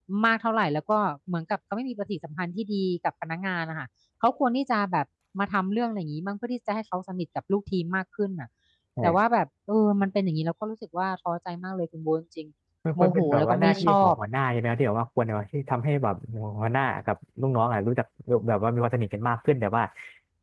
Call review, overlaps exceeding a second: present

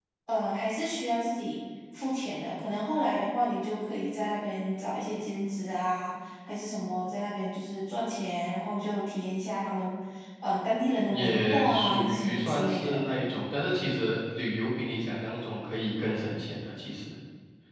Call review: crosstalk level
present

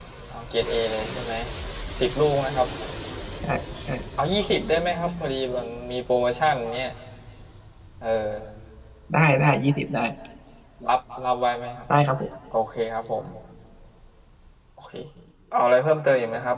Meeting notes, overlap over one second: none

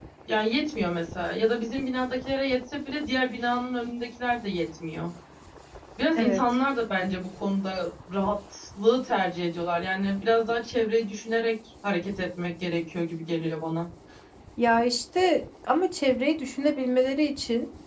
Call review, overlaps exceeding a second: none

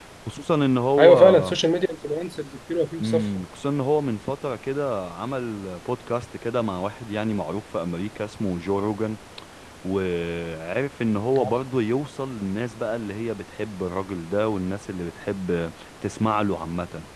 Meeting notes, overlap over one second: none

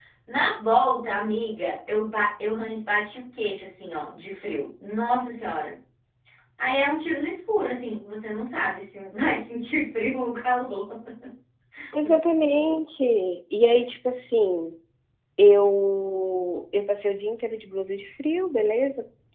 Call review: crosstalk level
none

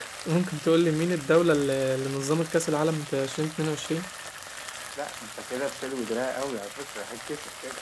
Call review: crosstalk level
none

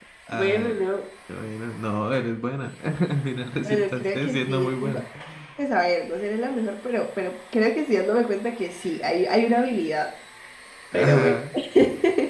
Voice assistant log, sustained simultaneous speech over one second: present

